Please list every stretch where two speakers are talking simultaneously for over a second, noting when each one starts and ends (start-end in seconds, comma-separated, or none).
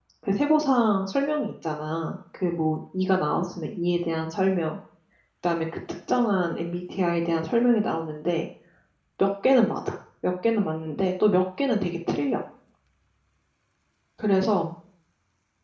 none